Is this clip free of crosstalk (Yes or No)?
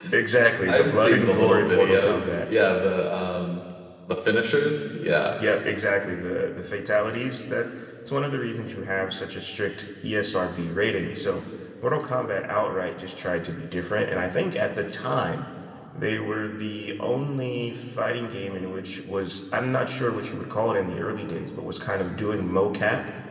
No